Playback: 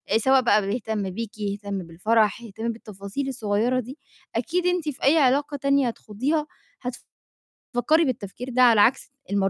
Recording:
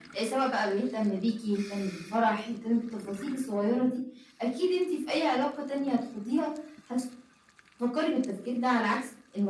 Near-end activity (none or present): none